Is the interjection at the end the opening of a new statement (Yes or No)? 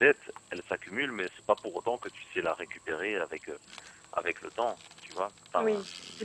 Yes